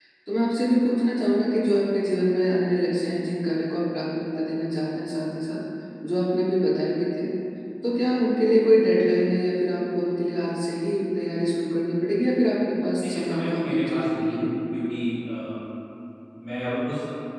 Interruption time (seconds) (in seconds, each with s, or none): 13.0 s